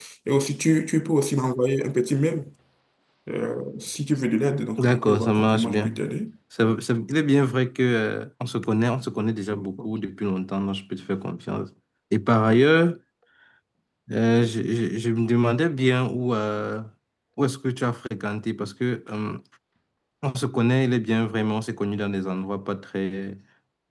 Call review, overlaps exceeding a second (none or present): present